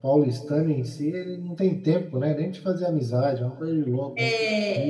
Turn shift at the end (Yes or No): Yes